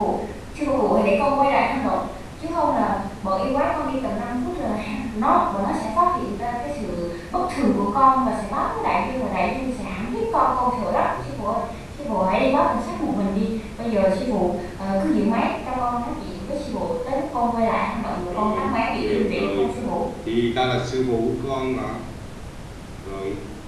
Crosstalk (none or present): present